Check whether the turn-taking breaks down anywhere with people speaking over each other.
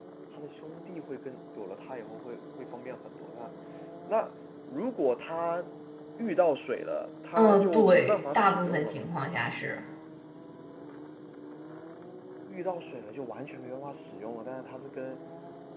Yes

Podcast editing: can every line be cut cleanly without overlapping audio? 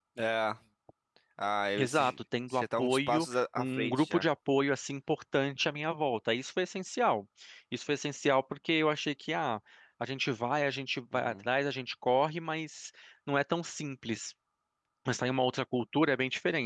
No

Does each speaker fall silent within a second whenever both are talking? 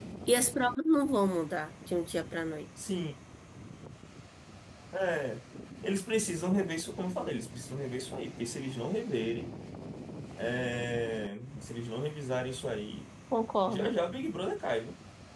Yes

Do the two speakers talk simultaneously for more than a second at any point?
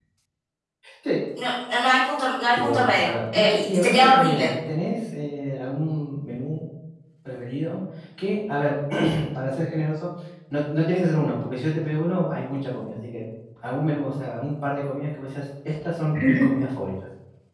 Yes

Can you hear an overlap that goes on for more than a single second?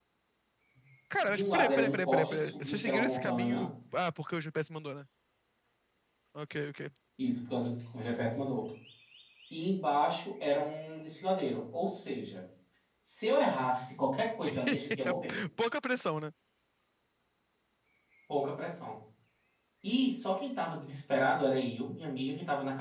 Yes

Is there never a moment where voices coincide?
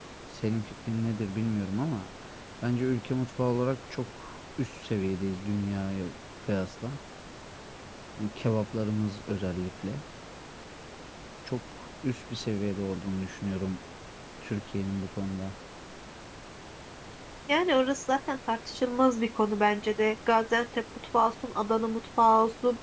Yes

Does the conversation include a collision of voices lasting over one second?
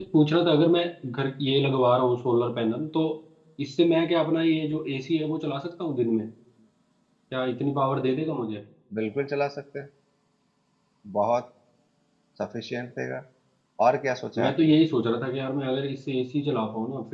No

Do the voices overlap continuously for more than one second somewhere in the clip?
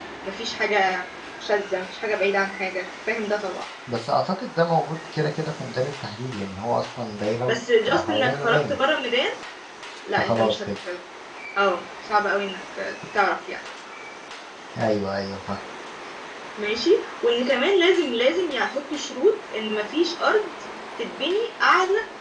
Yes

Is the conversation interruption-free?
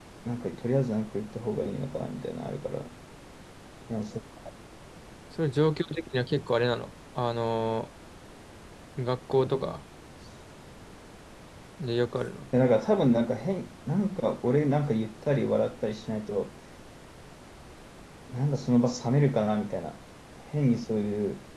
Yes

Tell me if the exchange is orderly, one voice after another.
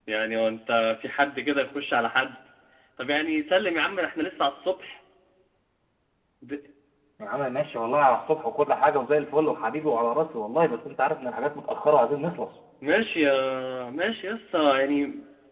Yes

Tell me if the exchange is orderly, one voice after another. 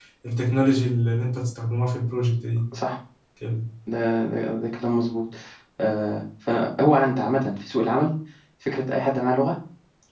Yes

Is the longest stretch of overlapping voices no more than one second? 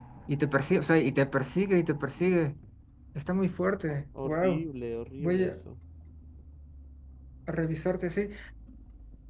Yes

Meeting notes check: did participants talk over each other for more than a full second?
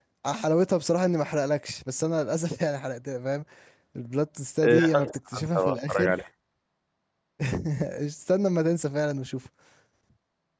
Yes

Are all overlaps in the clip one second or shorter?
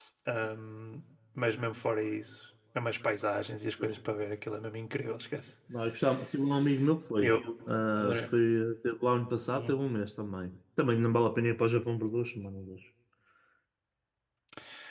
Yes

